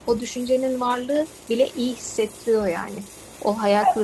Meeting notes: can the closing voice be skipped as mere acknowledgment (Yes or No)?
Yes